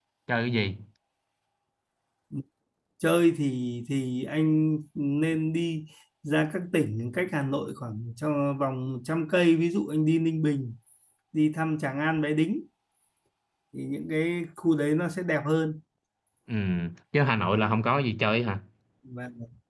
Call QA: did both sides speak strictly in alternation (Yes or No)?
Yes